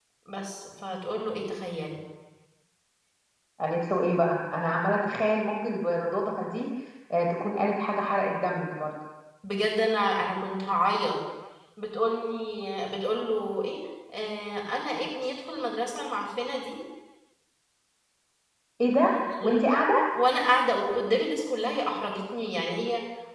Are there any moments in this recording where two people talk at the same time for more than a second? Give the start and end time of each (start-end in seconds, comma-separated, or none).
none